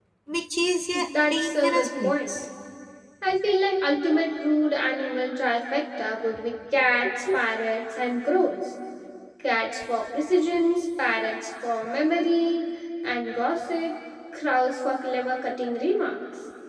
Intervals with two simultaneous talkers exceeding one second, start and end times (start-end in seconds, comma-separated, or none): 1.2-2.5